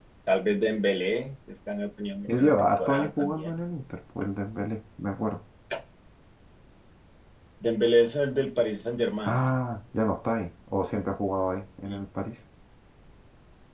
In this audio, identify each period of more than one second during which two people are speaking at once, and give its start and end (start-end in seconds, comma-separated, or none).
2.2-3.6